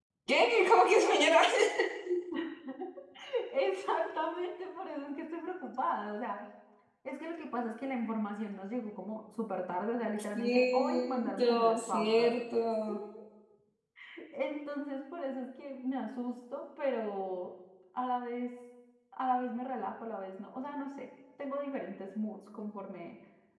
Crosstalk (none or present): present